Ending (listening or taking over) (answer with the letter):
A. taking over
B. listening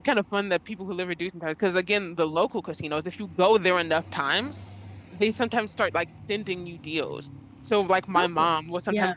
B